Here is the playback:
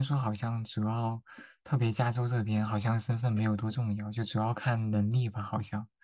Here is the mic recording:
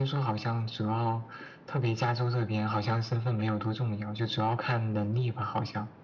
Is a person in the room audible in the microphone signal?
No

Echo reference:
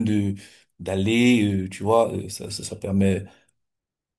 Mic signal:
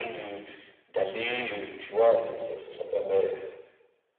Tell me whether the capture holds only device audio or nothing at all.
Yes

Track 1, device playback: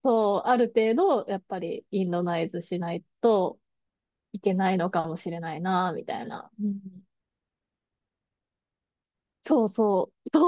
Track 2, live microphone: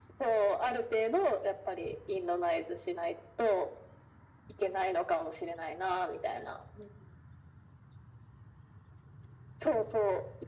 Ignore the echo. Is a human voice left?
No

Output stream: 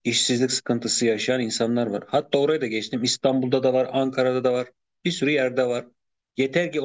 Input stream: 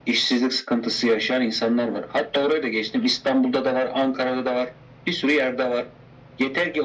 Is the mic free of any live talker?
Yes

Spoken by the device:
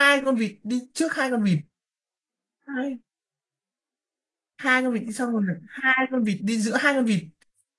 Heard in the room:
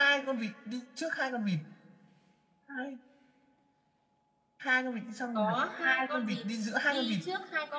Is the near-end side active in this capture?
Yes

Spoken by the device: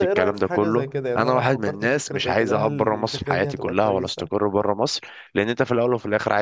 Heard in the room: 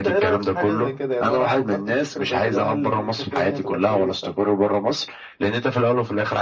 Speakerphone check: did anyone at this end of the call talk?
No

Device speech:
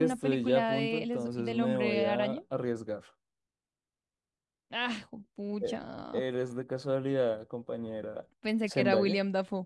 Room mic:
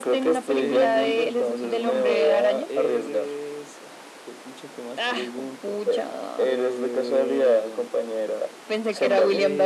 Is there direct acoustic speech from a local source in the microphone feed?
Yes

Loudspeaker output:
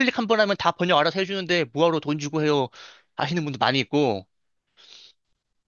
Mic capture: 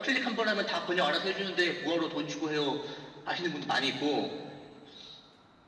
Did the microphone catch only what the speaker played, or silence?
Yes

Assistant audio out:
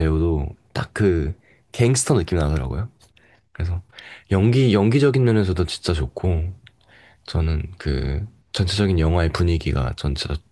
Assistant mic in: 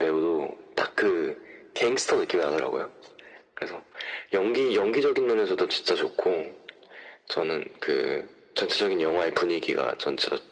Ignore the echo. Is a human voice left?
No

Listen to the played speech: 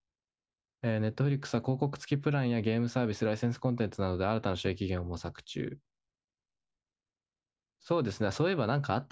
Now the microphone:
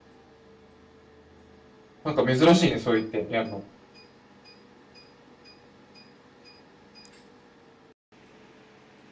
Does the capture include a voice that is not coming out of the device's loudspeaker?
Yes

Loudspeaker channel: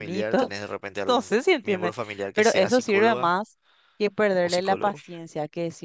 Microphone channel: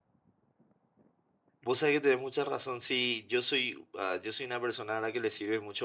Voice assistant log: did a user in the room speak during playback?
Yes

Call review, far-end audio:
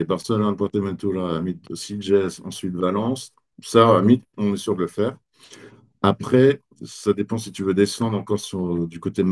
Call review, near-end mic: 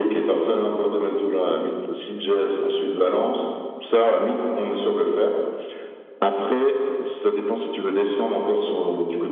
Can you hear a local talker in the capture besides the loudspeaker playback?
No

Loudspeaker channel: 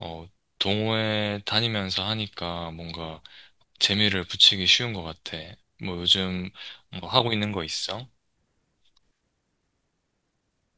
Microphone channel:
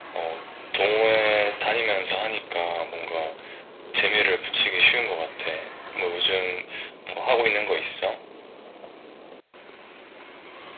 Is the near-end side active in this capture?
No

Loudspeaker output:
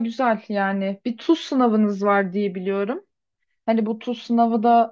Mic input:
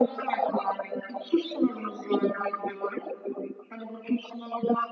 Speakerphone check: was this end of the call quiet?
Yes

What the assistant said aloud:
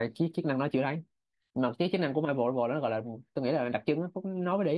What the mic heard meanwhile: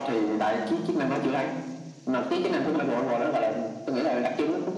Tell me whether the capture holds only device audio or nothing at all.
Yes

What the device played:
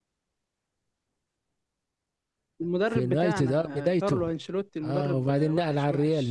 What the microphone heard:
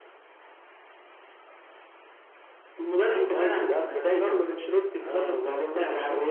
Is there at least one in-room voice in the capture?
No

